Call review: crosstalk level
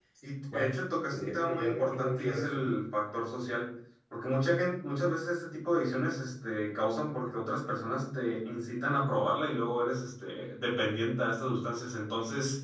present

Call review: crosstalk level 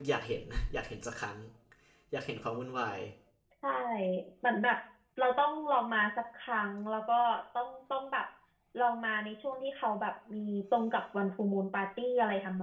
none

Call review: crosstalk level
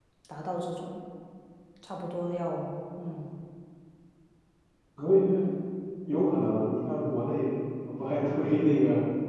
none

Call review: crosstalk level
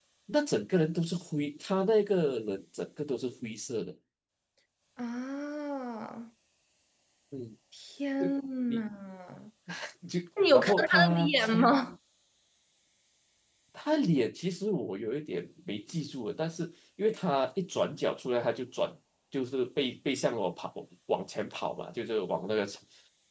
present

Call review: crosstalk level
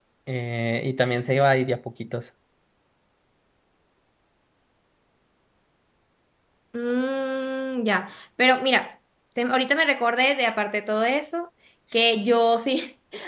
none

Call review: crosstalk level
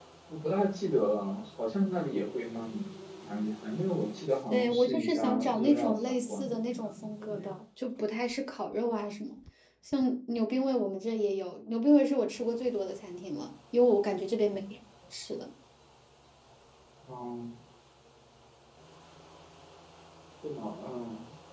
present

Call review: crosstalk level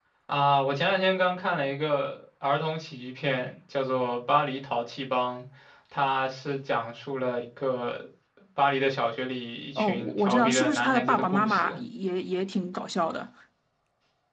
present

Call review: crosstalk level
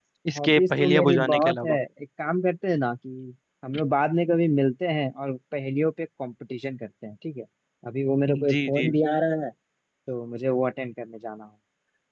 present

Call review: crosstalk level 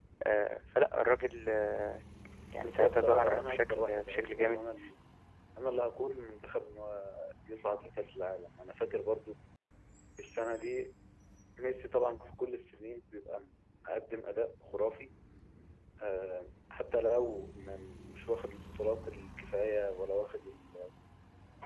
present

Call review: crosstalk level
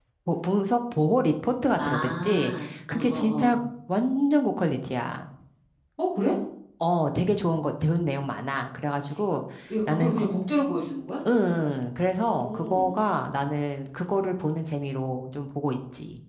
present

